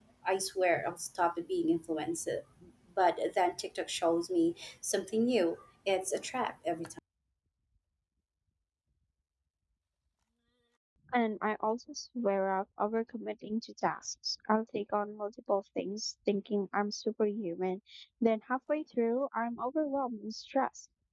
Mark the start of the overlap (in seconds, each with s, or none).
none